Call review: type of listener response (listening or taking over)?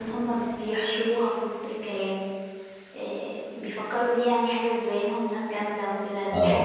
taking over